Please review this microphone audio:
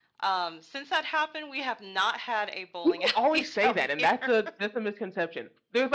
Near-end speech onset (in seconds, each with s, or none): none